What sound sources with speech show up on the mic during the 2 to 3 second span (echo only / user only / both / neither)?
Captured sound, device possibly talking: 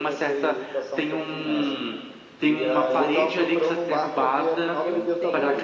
echo only